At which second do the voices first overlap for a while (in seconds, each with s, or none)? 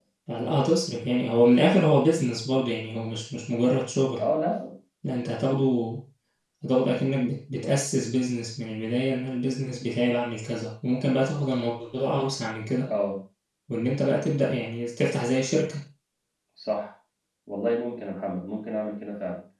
none